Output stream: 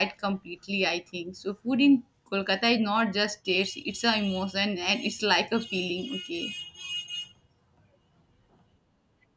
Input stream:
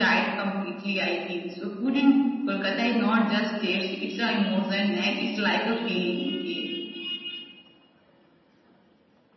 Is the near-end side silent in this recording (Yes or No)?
Yes